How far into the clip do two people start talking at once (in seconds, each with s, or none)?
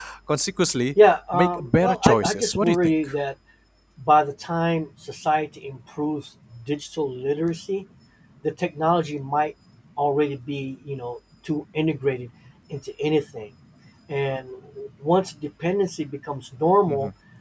1.3 s